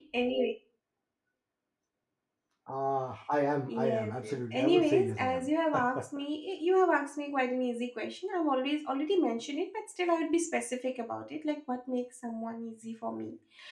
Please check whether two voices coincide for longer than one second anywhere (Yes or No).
Yes